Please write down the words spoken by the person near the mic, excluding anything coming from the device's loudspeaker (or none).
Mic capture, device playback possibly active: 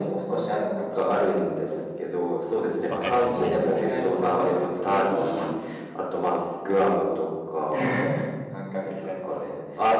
わかりますね。